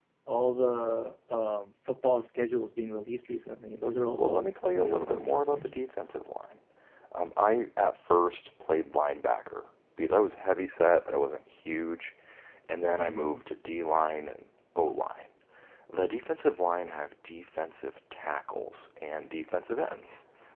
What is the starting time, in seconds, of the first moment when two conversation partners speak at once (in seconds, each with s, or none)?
4.2 s